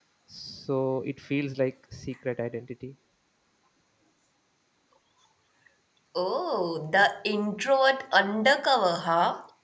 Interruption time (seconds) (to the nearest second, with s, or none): none